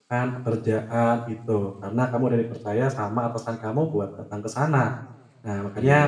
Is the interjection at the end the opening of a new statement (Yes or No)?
No